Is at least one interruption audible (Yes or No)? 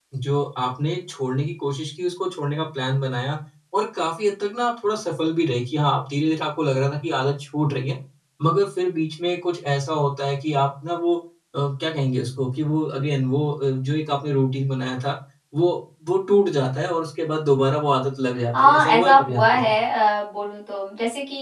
Yes